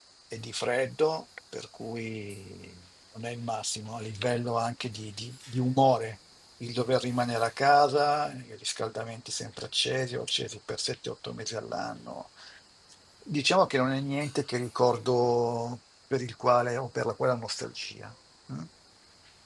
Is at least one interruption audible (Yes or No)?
No